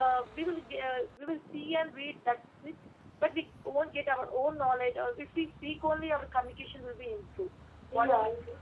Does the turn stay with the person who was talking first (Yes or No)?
No